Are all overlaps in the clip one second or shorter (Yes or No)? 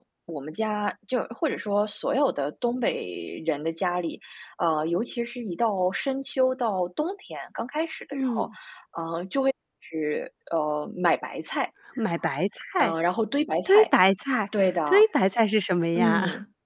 Yes